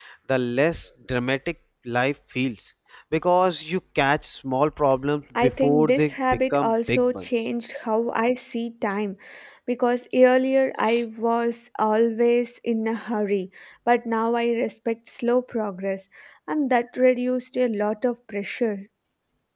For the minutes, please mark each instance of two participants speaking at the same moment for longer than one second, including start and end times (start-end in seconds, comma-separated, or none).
5.4-7.5